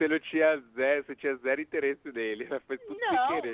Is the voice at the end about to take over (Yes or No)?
Yes